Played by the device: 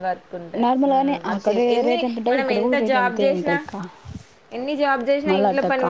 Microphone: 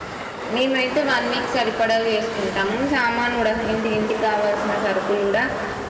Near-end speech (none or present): present